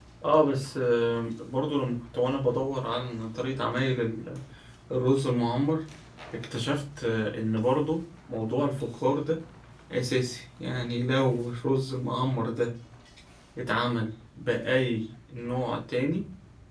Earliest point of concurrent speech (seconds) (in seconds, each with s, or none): none